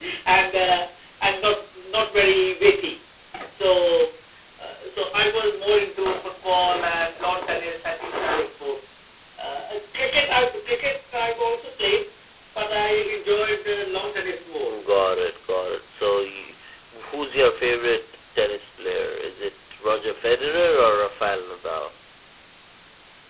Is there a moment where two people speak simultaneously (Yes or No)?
No